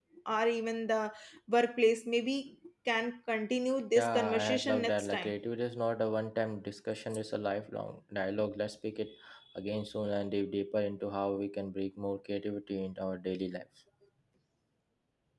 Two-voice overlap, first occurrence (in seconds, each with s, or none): 4.0 s